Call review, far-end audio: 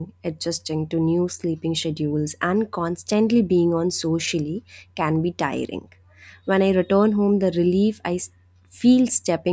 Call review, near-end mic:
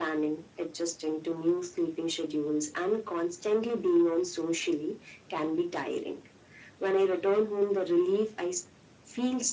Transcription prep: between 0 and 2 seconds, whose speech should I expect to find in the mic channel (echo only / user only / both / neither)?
echo only